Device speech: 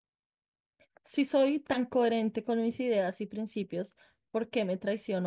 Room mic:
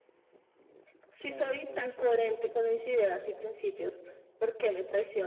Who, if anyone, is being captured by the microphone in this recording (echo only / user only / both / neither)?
both